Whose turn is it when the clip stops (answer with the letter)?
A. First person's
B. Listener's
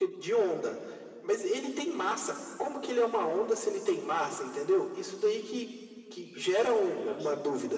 A